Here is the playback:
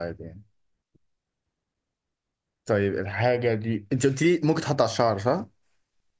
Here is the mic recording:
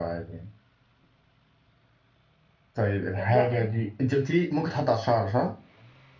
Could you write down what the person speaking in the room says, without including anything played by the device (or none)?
آه، لا